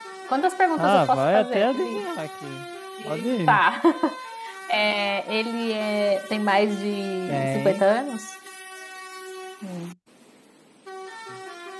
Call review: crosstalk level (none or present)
present